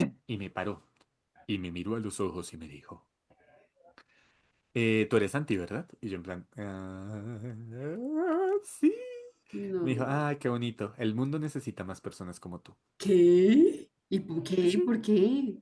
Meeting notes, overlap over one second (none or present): none